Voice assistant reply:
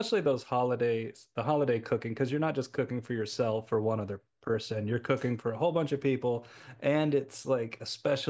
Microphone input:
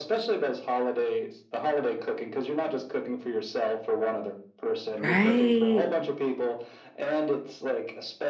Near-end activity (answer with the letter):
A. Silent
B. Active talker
B